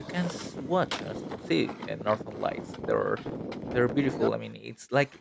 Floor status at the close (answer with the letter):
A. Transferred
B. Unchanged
B